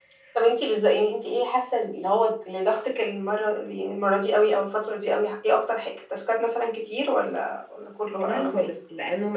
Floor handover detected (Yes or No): Yes